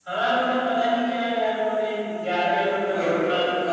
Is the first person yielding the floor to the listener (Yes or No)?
Yes